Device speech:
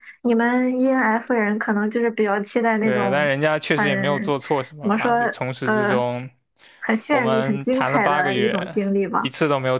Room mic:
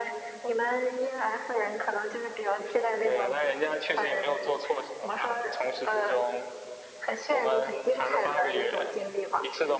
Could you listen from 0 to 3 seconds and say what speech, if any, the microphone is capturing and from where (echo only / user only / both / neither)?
echo only